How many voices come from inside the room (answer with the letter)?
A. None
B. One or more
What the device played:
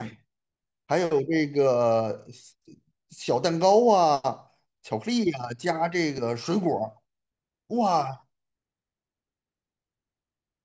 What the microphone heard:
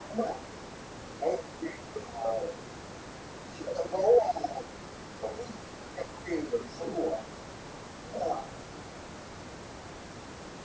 A